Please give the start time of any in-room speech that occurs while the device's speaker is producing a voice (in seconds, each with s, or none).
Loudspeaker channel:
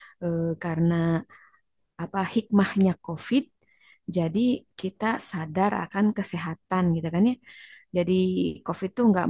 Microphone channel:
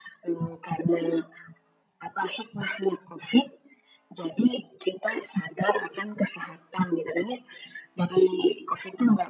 none